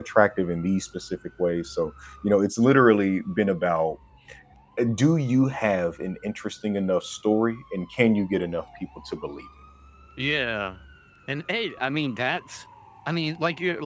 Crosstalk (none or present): none